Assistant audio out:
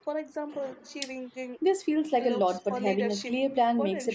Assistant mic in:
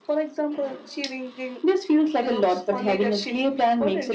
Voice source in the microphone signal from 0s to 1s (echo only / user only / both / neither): echo only